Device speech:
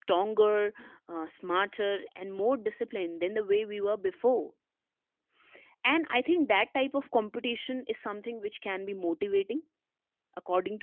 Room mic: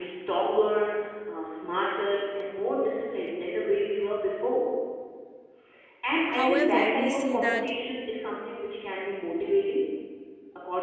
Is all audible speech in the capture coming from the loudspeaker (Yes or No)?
No